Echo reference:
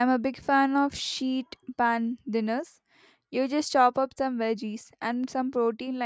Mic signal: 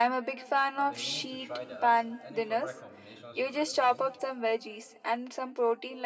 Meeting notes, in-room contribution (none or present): present